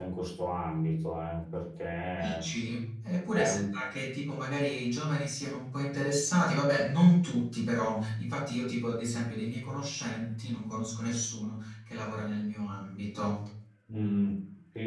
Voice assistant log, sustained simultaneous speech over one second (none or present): none